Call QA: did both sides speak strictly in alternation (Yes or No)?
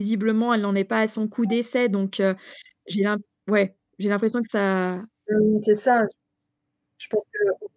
Yes